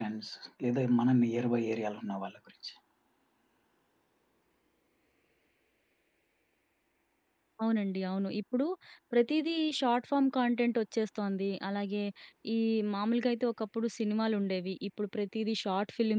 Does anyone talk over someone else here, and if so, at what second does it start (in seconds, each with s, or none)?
none